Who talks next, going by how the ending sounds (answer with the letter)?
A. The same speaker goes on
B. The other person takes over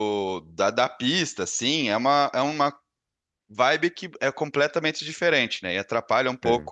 A